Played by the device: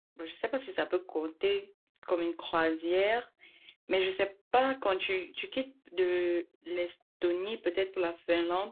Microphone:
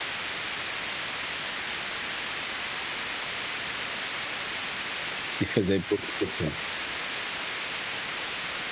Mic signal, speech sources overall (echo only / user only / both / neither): user only